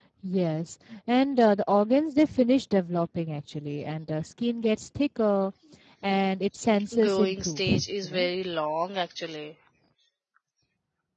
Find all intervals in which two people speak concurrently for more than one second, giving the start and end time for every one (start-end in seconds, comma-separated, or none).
7.0-8.3